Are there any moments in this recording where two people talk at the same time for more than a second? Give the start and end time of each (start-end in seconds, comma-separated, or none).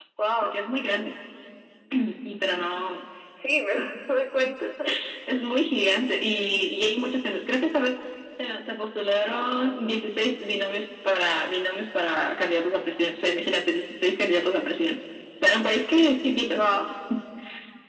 none